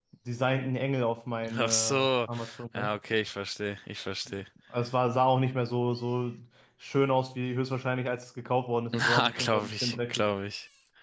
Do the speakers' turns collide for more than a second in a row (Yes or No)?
Yes